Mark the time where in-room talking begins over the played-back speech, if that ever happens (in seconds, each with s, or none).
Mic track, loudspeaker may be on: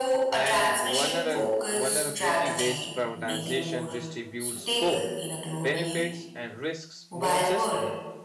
0.3 s